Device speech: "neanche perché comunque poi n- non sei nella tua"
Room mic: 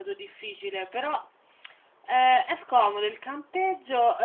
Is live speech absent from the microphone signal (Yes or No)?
No